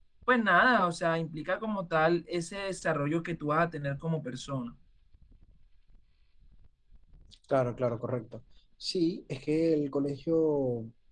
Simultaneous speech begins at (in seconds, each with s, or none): none